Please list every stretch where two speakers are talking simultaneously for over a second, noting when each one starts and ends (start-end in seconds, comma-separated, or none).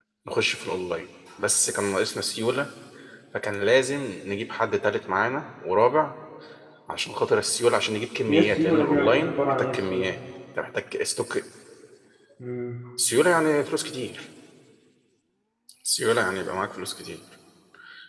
8.3-10.1